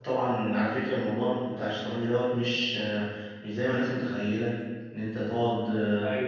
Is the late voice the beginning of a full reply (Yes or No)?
No